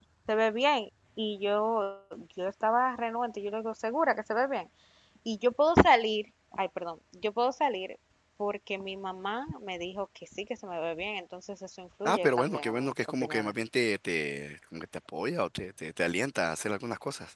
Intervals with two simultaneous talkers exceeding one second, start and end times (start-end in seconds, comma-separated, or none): 12.0-13.5